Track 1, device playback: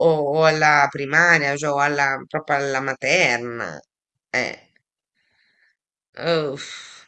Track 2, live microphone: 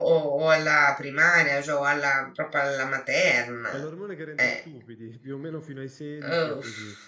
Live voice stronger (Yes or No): No